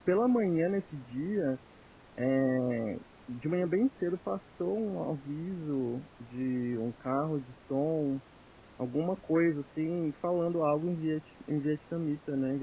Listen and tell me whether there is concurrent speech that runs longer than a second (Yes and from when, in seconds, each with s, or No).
No